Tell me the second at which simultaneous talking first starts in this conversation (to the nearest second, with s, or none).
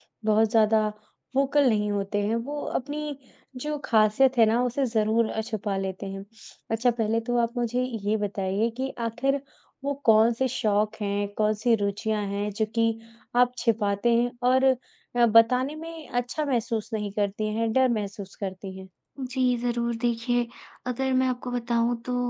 none